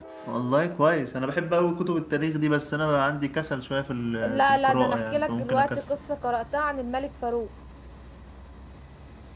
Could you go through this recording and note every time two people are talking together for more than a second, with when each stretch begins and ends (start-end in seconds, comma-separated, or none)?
4.3-6.0